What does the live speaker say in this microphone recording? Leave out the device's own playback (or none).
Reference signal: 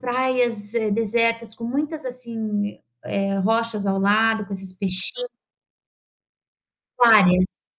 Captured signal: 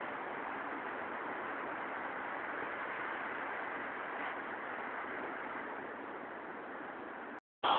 none